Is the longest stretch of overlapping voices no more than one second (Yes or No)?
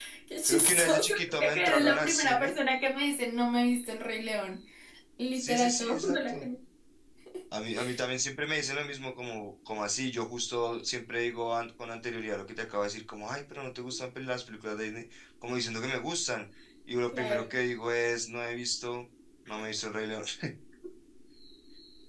No